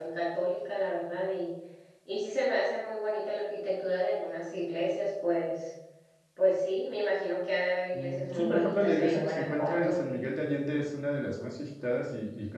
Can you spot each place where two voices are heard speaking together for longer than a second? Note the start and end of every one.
7.9-10.0

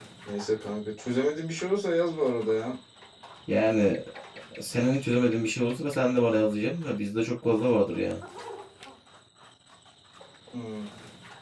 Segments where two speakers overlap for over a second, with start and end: none

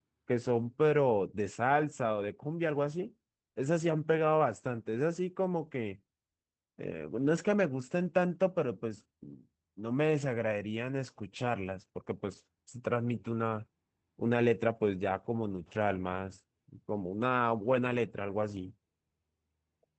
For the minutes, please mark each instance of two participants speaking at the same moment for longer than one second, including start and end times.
none

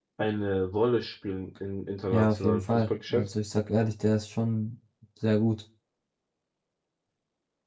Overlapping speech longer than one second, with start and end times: 2.1-3.3

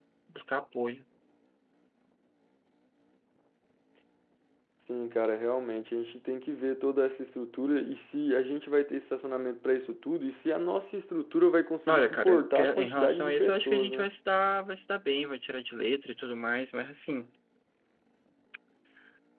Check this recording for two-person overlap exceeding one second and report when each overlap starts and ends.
11.9-14.1

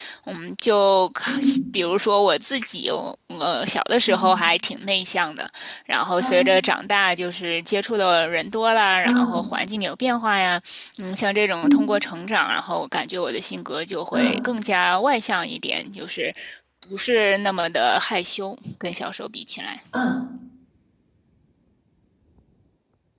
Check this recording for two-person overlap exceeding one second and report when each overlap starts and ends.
none

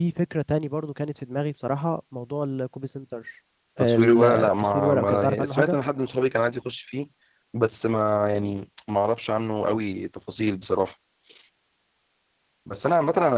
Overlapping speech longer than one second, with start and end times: 3.8-5.8

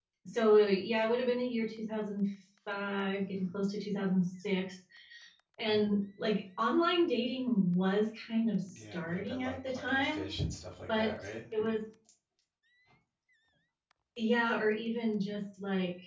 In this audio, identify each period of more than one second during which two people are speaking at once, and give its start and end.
8.7-10.3

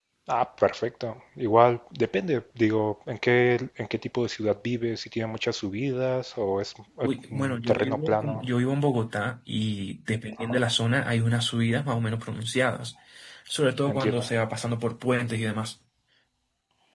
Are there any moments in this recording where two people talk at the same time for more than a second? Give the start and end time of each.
7.0-8.4

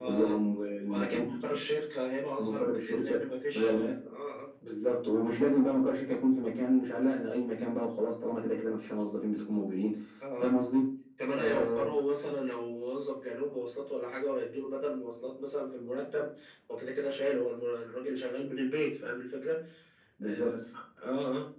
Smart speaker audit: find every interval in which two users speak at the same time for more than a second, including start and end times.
2.4-3.9

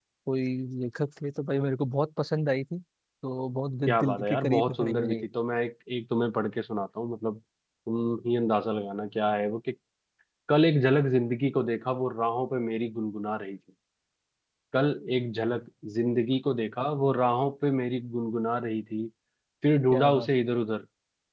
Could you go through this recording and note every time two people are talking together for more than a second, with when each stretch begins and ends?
3.9-5.3

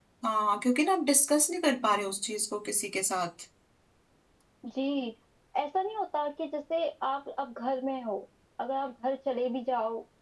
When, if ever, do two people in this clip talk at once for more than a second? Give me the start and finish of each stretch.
none

